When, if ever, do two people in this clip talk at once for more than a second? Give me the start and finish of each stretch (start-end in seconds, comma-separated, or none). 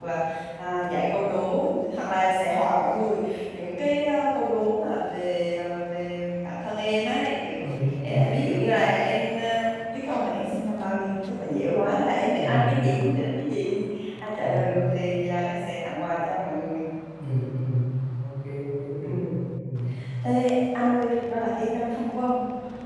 none